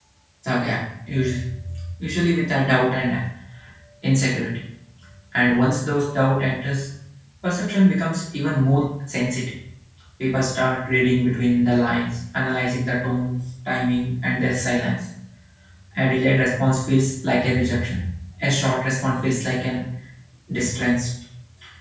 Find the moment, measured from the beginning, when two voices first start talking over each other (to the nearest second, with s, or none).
none